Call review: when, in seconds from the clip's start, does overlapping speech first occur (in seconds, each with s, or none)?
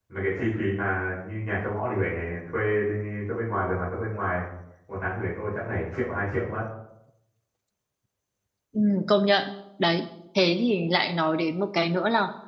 none